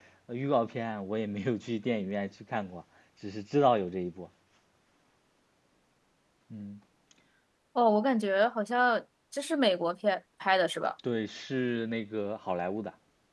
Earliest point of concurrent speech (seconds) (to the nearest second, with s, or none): none